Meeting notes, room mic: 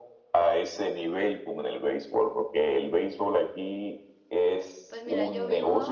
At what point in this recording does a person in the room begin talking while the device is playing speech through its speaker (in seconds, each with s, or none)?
4.9 s